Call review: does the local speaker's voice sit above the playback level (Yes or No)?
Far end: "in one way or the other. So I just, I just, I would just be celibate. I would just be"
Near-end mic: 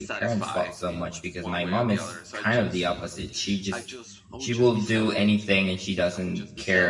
Yes